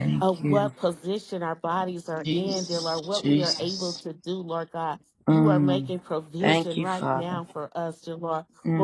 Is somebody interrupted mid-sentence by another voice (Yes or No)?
Yes